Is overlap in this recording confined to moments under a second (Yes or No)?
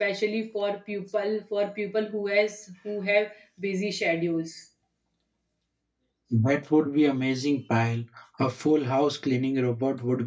Yes